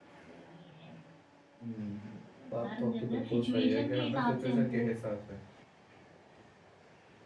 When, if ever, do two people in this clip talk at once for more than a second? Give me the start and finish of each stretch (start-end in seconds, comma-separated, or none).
2.5-4.8